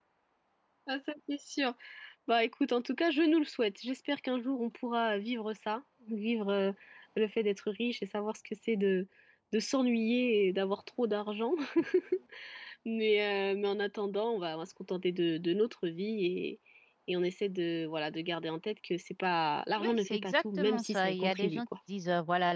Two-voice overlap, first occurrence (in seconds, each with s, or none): 19.8 s